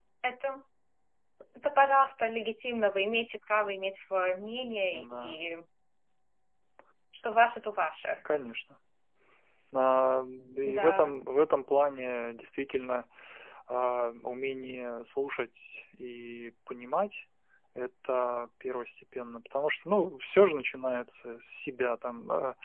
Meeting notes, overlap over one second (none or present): none